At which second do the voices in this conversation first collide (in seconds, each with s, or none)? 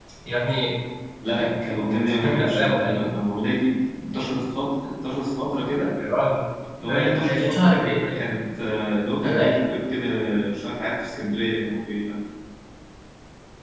1.4 s